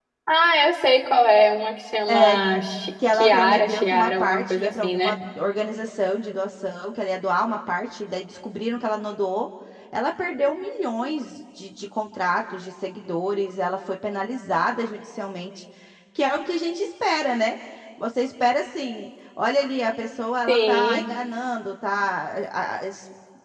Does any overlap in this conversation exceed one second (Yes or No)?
Yes